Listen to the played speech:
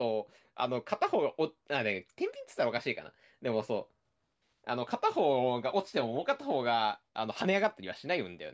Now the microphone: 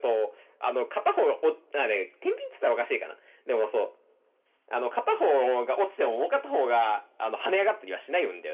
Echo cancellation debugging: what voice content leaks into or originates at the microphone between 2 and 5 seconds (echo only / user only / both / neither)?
echo only